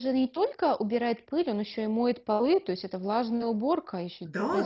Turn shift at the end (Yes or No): Yes